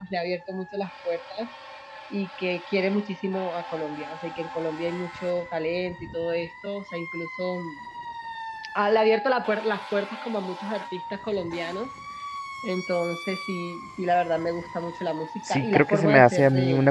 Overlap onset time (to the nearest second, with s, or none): 15 s